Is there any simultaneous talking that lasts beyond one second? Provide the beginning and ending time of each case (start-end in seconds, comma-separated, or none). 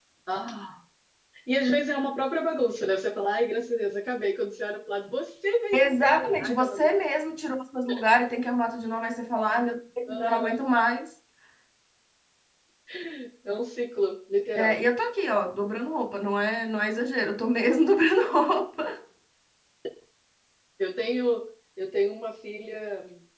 5.7-6.9